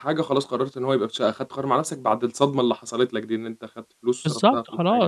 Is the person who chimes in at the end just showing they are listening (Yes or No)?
No